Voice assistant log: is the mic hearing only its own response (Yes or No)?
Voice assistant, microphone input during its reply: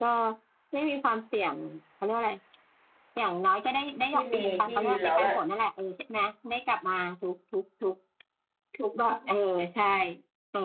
No